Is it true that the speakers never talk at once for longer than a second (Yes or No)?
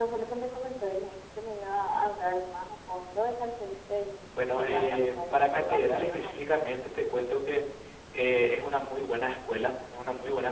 No